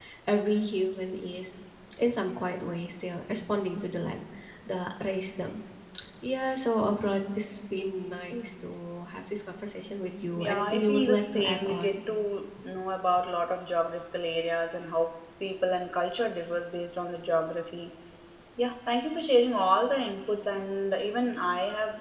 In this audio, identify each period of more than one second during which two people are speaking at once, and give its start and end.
10.3-12.0

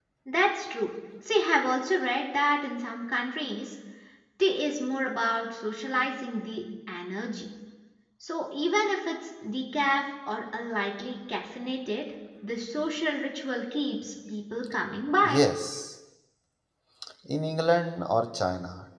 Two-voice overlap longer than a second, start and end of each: none

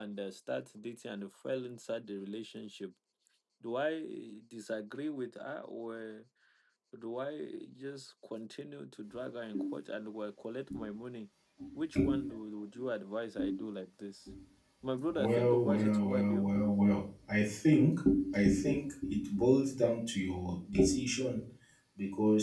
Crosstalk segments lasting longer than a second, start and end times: 15.1-16.5

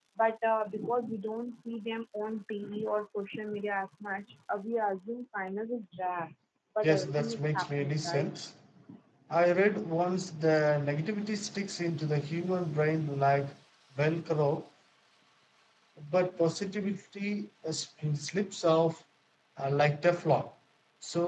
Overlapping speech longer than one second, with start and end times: 6.8-8.4

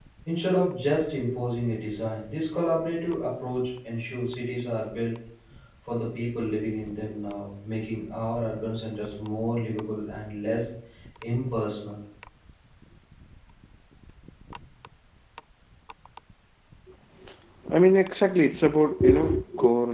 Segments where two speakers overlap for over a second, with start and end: none

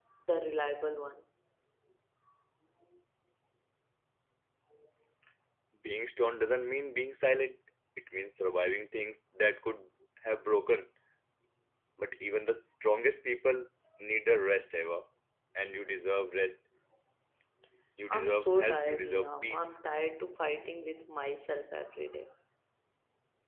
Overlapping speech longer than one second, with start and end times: 18.1-19.7

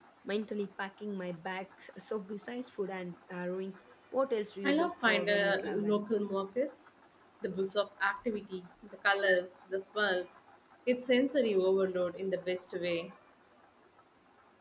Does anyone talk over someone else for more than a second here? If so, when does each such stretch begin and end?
4.6-6.0

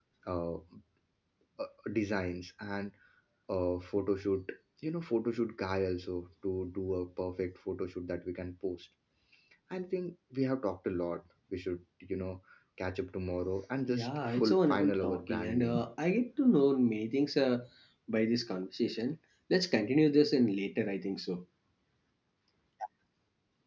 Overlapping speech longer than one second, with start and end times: 13.9-15.8

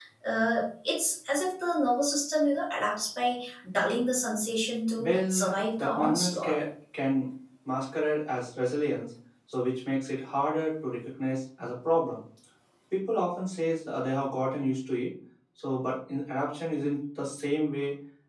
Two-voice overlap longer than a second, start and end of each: 5.0-6.6

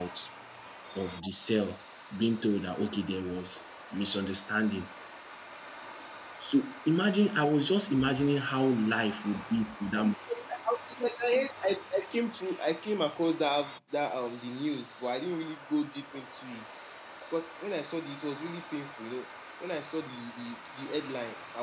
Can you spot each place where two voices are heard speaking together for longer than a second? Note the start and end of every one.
none

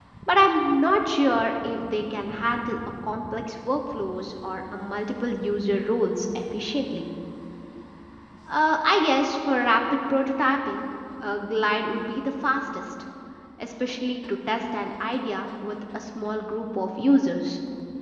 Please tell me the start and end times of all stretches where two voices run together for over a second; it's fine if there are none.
none

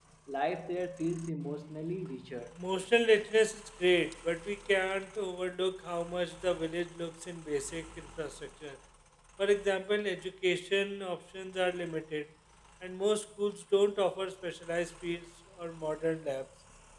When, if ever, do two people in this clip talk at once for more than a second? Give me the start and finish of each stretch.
none

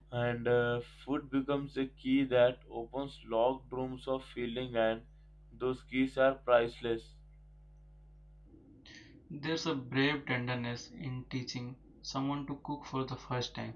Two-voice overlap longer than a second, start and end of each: none

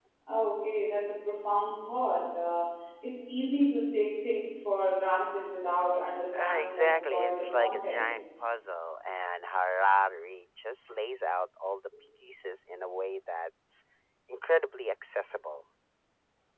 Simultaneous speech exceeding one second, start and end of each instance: 6.4-8.1

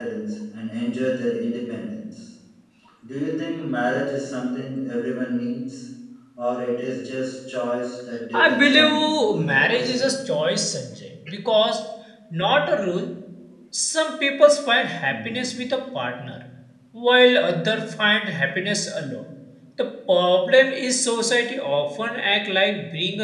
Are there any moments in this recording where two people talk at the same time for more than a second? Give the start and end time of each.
8.3-10.1

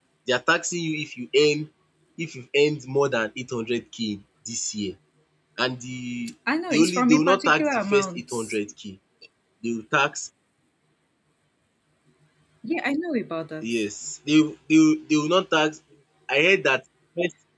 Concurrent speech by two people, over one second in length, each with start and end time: 6.7-8.6

